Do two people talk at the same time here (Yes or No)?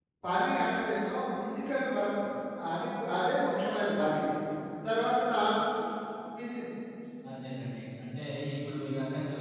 No